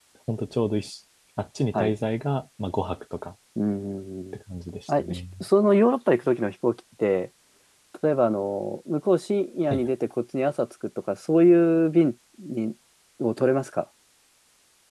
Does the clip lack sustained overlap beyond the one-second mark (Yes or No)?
Yes